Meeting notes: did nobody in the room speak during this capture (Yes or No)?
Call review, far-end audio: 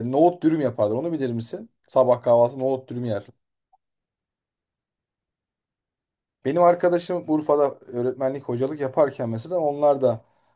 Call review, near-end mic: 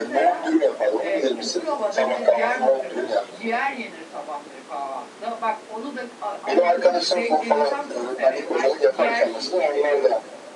No